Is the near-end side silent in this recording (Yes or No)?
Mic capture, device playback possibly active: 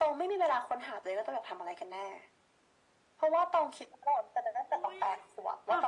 No